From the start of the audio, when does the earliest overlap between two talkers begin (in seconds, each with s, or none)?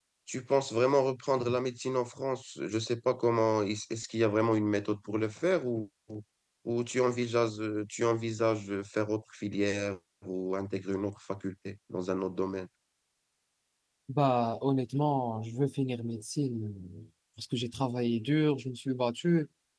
none